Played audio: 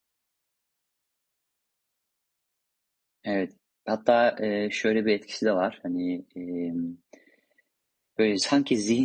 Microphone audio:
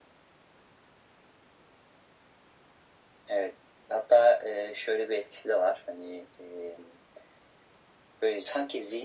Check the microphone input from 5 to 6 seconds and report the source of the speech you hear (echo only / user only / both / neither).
echo only